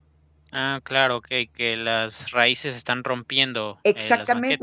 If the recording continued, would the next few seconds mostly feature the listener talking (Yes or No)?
Yes